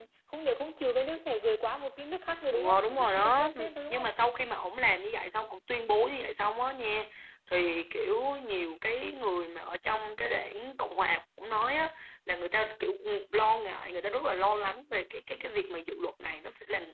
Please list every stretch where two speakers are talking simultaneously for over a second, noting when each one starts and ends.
2.5-4.1

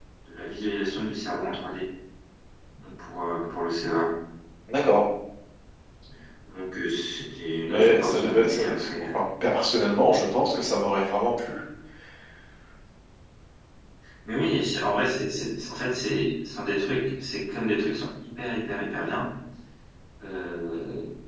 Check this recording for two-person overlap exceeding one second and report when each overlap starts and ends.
7.7-9.2

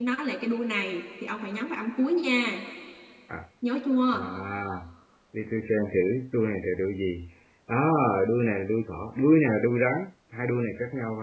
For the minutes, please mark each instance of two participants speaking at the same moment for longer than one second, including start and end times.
none

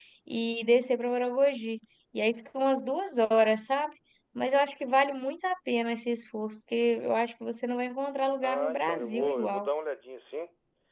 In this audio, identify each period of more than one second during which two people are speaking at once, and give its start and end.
8.4-9.7

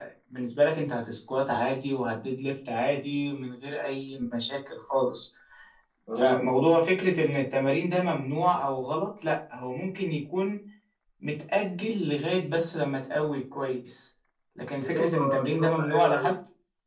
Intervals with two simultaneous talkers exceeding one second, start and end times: 14.8-16.3

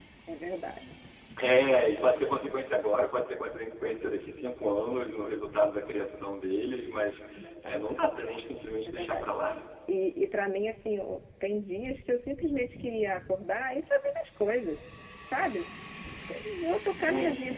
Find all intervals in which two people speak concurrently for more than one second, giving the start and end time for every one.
none

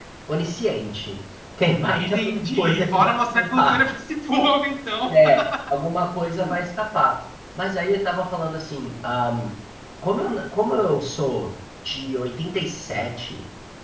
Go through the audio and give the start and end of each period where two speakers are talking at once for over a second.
2.0-3.8

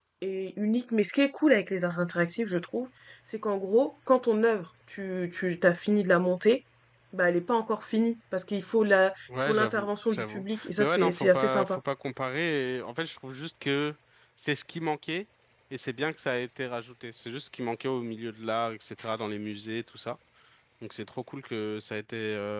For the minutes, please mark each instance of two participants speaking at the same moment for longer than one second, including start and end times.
9.4-11.8

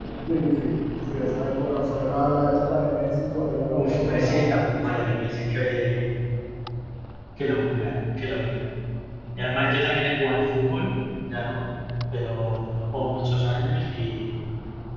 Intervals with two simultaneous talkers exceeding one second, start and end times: 3.8-5.2

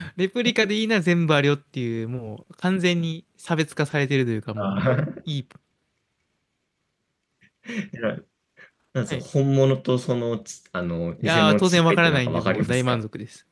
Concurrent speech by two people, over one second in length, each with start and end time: 11.2-13.0

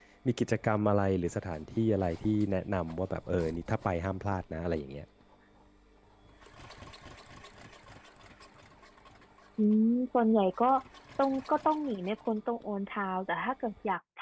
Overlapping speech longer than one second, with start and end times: none

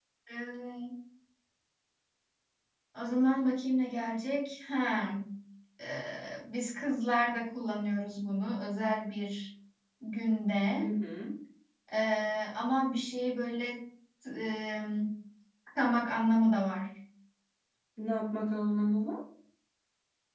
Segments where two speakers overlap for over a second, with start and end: none

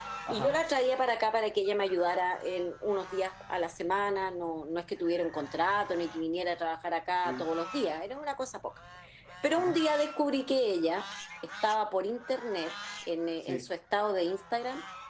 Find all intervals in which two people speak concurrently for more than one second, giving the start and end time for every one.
none

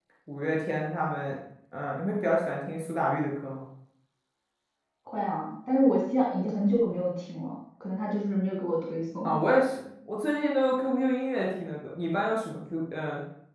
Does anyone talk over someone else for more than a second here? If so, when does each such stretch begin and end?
none

